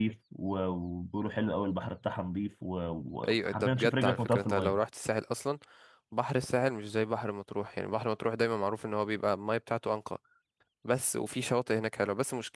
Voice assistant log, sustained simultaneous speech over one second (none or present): present